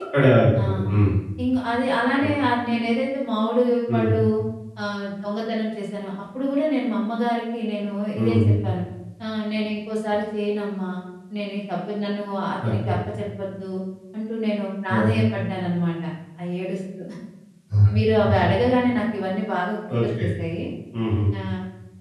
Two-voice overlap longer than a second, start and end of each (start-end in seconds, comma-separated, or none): none